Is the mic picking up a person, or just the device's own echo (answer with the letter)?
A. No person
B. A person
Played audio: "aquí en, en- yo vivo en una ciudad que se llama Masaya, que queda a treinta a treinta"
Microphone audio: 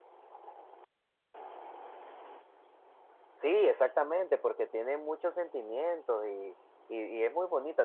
B